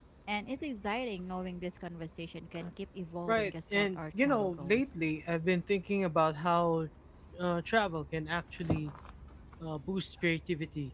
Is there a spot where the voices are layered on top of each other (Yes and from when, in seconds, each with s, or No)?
Yes, from 3.3 s